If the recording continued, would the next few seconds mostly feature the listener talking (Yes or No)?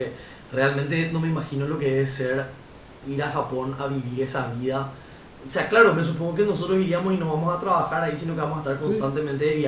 No